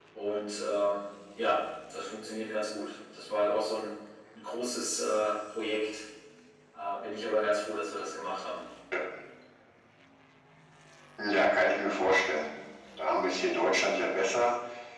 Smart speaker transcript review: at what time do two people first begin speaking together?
none

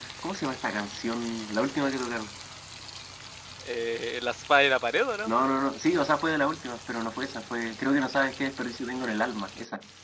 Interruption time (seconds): none

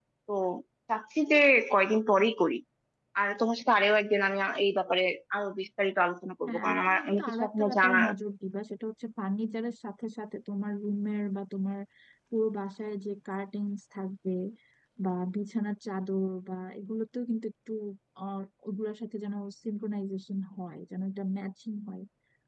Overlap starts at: 6.5 s

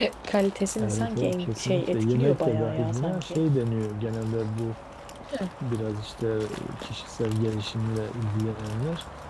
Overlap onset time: 0.8 s

